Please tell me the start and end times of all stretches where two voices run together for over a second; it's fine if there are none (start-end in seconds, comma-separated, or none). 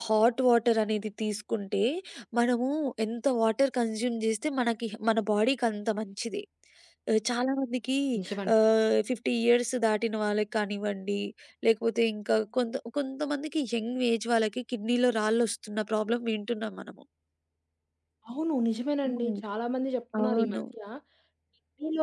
none